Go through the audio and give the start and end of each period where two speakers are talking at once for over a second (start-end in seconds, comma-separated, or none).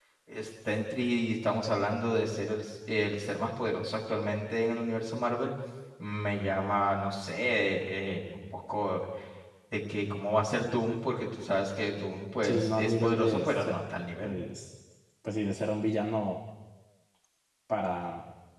12.4-13.7